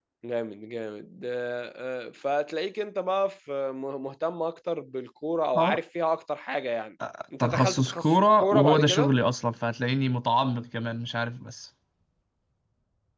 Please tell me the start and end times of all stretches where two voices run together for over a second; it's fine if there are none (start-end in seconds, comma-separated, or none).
7.4-9.1